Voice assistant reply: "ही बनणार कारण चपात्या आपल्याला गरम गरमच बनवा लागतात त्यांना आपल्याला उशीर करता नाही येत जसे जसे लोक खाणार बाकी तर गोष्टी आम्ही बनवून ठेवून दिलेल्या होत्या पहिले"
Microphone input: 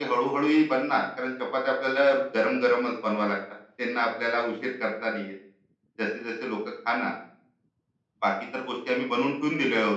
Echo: present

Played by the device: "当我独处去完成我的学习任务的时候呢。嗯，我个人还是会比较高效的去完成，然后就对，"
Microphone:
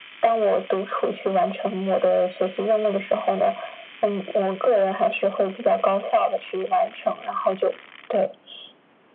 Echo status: present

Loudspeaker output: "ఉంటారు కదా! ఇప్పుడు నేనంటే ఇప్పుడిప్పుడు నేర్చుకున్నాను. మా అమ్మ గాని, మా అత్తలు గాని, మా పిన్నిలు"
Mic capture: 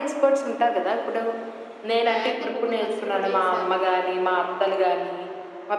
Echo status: present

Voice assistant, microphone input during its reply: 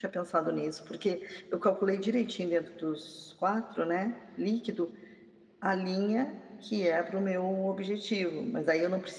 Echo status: none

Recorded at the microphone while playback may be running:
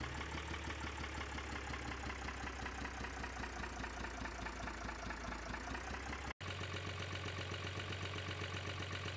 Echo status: none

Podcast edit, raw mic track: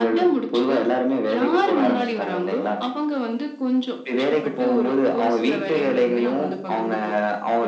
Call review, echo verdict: present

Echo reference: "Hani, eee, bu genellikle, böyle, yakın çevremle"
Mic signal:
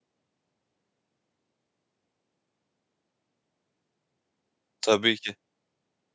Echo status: none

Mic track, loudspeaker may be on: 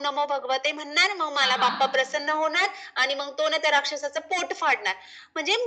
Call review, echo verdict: present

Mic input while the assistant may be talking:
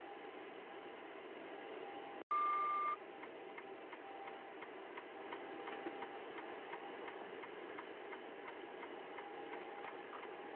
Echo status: none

